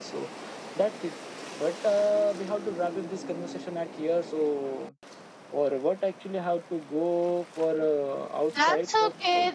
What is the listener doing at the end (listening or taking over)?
taking over